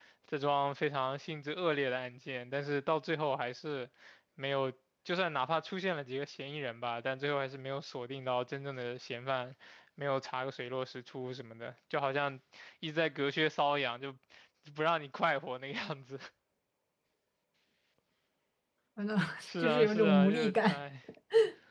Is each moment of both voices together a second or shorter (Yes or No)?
No